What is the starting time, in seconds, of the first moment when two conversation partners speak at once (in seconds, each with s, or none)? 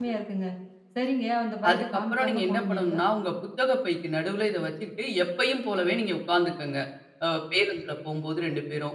1.7 s